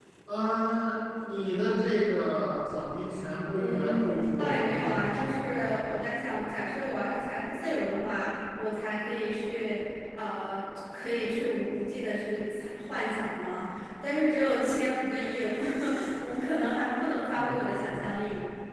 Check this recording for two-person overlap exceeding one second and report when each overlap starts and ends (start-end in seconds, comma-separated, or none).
3.5-5.5